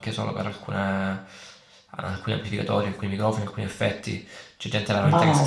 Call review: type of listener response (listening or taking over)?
listening